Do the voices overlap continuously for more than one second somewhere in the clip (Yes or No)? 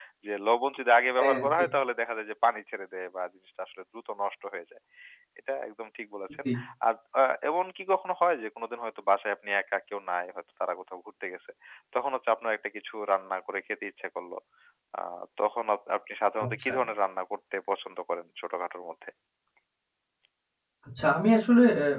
No